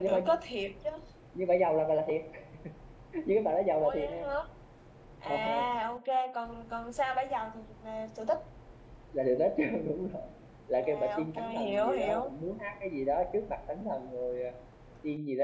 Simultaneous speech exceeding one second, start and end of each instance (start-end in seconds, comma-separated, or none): 10.8-12.3